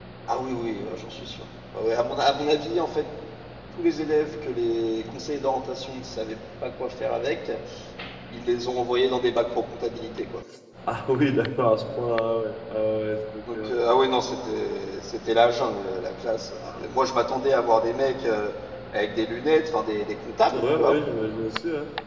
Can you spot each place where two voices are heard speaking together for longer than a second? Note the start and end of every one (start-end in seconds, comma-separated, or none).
none